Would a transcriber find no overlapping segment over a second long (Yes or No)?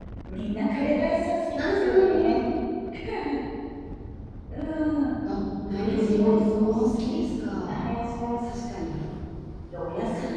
No